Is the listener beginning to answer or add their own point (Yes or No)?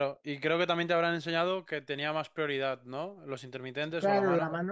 Yes